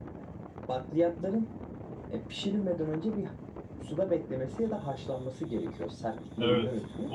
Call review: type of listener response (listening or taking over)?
taking over